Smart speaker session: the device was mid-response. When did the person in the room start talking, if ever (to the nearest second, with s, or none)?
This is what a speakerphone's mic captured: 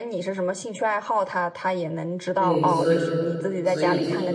2 s